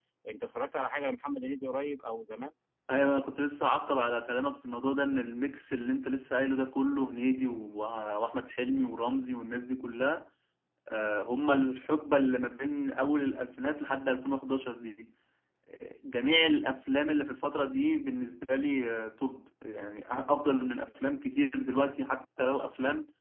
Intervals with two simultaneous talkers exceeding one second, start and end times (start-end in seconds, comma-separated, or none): none